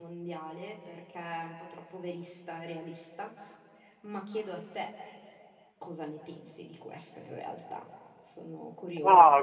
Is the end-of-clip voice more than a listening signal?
Yes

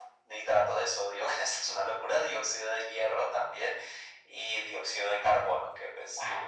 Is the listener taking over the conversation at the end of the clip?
Yes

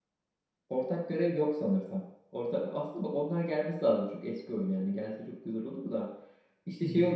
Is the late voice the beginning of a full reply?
No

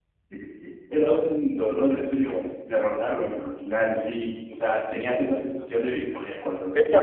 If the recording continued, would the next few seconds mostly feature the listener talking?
Yes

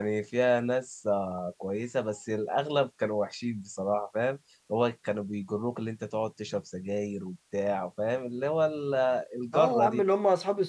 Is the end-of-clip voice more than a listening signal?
Yes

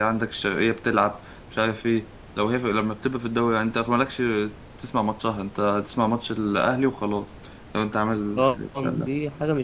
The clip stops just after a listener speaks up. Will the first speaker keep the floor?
No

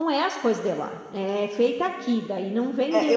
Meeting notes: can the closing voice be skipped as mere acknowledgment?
No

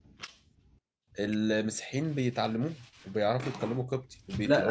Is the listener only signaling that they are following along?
No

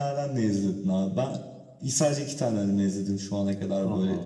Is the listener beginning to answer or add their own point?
No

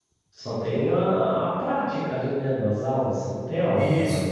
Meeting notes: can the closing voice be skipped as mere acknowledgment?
No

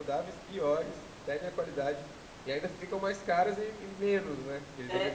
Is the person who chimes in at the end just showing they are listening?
No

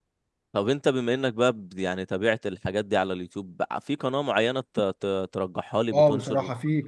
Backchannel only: No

